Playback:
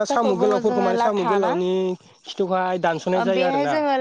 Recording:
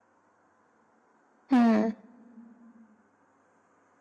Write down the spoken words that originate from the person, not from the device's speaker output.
उम

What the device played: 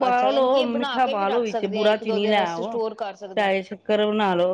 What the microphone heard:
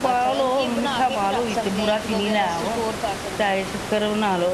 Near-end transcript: none

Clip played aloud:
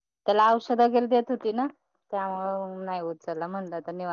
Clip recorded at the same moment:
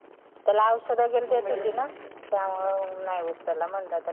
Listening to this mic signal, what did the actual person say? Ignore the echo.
भोपळ्याची

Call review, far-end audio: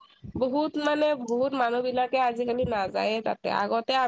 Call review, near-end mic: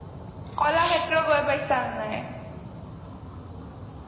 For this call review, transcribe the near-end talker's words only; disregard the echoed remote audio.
কলাক্ষেত্ৰ গৈ পাইছা নাই।

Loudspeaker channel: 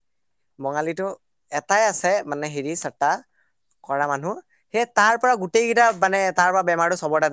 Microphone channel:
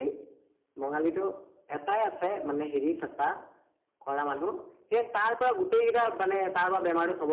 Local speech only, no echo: none

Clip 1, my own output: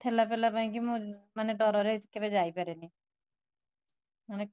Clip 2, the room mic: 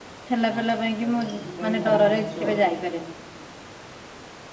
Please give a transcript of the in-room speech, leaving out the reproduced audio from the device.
ହଁ ତା ସହିତ ସେଇପାଇଁ ଘରେ ବସଚୁ ଆଉ।

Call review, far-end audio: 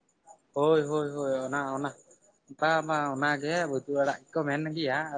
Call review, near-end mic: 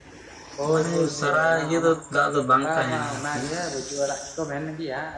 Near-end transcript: ᱢᱟᱱᱮ ᱥᱟᱨᱟ ᱤᱭᱟᱹ ᱫᱚ ᱫᱟᱜ ᱫᱚ ᱵᱟᱝ ᱛᱟᱦᱮᱱᱟ ᱟᱨ ᱠᱤ

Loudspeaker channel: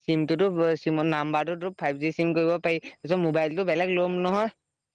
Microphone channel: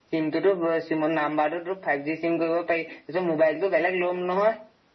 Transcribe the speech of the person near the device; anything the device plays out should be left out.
none

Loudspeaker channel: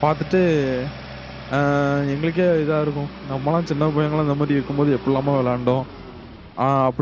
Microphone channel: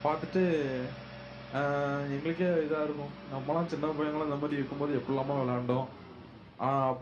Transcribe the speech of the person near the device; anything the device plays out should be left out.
none

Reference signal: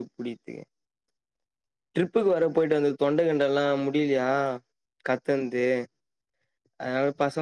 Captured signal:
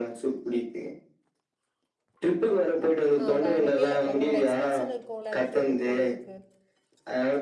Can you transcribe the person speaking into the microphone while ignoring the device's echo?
ஆ வேனுக்கு இல்ல உங்களோட எக்ஸ்பென்ஸ்சனு இருக்குல அந்த ட்ரிப்பு போறதுக்கு

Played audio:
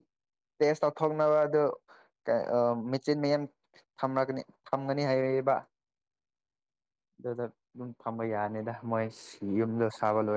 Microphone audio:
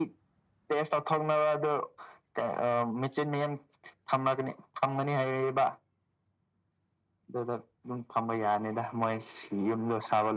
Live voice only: none

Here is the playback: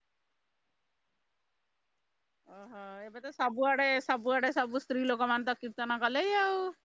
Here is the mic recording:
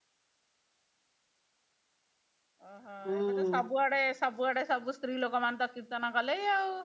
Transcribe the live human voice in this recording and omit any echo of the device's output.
ହୁଁ

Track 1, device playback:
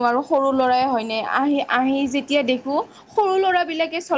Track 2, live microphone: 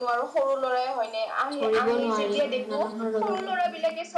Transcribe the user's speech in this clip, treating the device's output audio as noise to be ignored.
ধৰিব নোৱাৰি মানুহৰ লগত

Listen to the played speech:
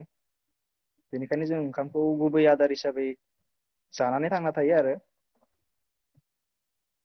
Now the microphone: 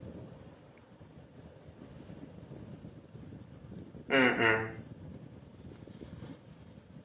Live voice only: उम उम

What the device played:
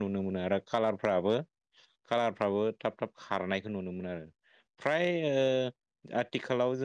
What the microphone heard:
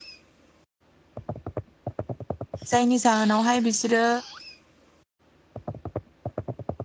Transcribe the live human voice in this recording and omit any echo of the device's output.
जायनि जाहोनावहाय बिसोरो

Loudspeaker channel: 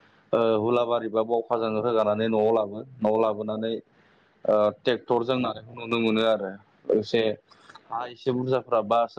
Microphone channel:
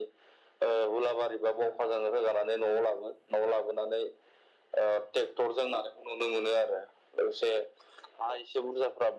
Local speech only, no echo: none

